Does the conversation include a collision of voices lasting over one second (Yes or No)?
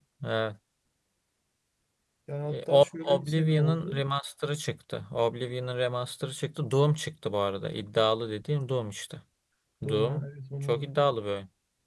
Yes